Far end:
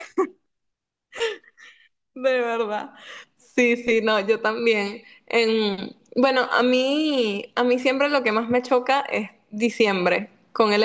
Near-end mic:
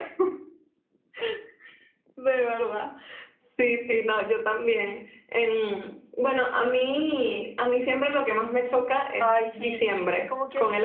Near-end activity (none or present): present